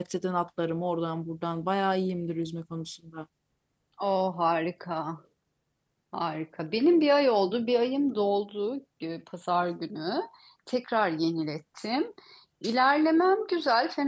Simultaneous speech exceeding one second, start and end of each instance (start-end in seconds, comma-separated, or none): none